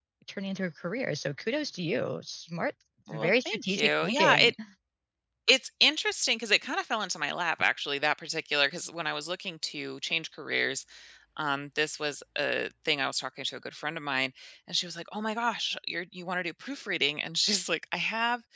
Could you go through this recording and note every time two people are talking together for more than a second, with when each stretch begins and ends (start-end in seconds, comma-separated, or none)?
3.1-4.5